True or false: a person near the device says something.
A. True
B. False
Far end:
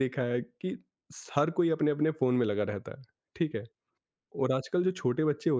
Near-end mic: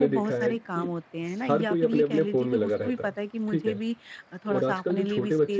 A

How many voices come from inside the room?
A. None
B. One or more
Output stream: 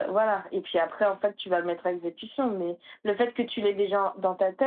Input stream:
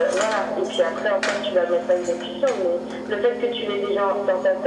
A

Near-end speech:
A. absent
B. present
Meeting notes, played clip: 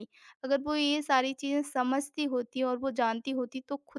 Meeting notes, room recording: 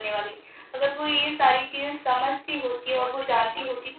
B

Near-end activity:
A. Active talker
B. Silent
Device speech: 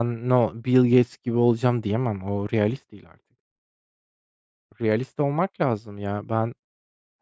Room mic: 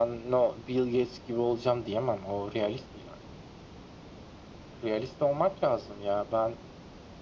B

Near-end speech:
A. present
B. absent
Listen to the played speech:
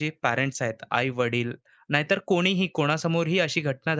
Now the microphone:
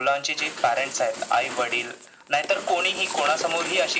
B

